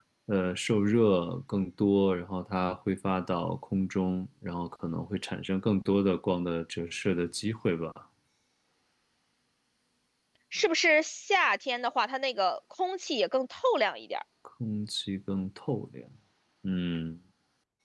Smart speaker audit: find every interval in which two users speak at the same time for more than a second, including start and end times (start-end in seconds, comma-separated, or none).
none